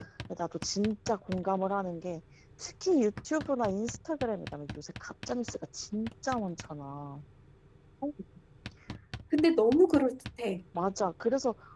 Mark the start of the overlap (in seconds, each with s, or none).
none